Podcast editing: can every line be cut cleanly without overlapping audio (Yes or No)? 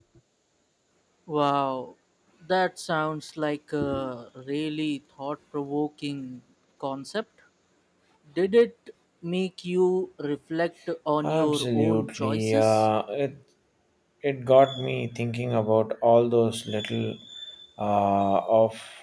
No